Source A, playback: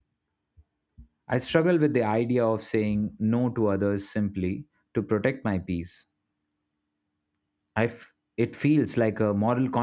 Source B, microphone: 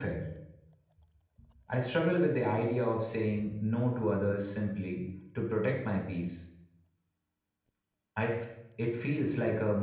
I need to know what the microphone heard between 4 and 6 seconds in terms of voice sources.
echo only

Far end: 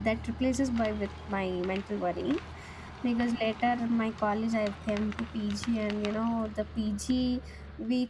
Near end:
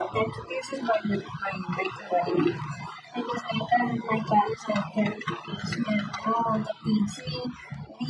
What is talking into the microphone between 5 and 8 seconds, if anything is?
echo only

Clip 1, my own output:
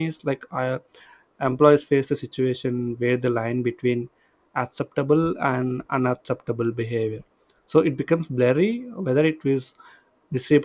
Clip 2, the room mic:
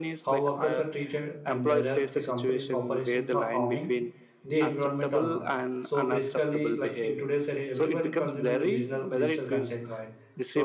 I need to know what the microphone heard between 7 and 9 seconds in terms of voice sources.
both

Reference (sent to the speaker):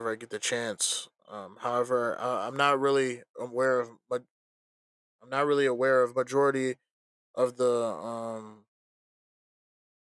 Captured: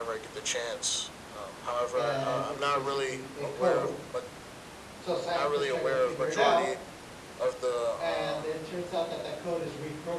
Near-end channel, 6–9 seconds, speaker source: both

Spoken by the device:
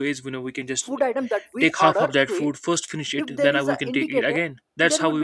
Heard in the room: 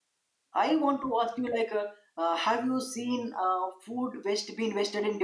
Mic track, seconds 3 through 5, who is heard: user only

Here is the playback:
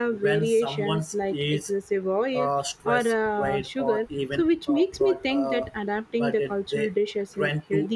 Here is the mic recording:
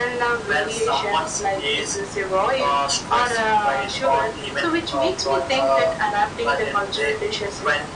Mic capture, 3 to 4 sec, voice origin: echo only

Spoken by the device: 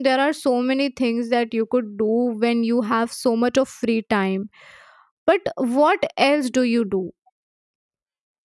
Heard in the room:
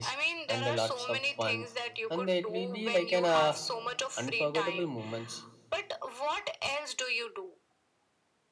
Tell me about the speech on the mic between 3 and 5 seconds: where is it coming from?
both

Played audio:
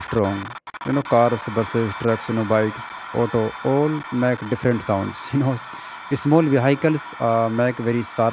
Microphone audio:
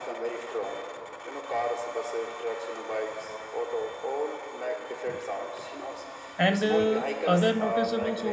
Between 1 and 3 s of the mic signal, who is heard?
echo only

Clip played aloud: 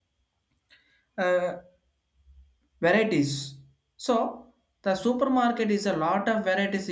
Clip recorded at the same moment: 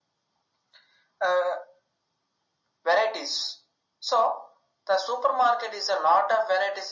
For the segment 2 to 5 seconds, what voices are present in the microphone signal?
echo only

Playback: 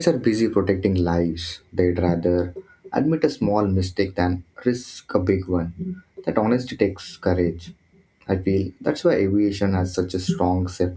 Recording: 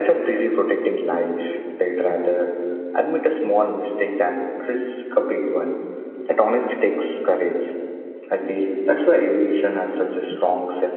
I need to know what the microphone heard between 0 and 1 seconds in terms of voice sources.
echo only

